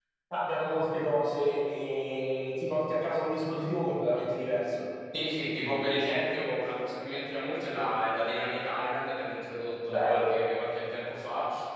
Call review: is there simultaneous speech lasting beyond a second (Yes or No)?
No